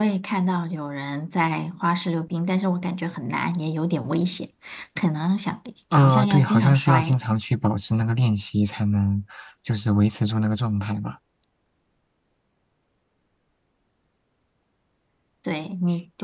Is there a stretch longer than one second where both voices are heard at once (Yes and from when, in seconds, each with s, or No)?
Yes, from 5.9 s